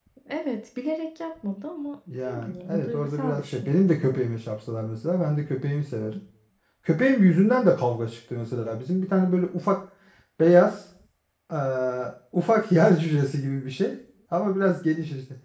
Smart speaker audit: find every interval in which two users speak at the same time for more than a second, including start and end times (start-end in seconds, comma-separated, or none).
2.3-4.2